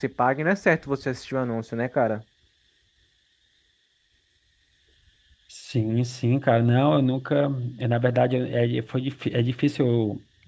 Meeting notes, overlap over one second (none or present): none